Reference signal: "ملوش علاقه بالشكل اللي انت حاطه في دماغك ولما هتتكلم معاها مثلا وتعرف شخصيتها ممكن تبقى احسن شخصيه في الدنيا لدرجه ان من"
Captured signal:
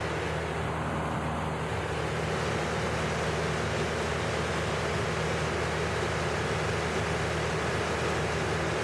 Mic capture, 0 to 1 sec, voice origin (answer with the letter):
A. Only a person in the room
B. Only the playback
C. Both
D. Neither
D